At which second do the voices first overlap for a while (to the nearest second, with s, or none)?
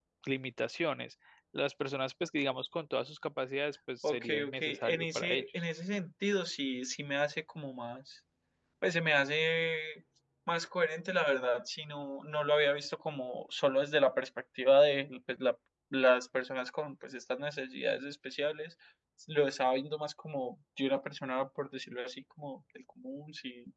4 s